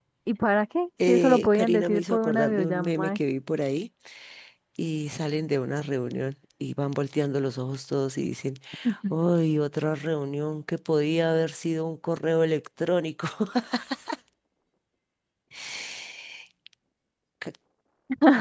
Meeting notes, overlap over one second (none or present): present